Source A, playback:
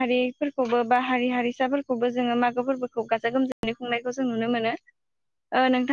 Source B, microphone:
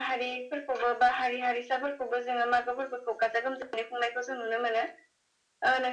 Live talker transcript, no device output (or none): none